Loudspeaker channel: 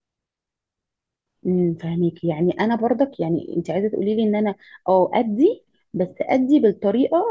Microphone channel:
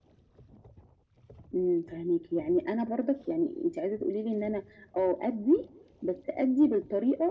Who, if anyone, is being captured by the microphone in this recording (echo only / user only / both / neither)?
echo only